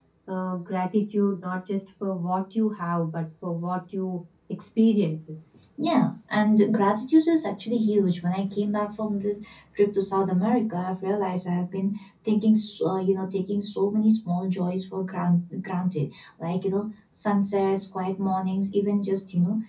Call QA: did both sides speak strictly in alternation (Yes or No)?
Yes